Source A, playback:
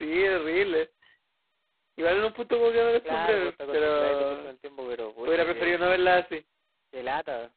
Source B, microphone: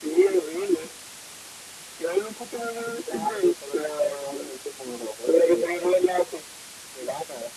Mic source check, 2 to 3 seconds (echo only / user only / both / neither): echo only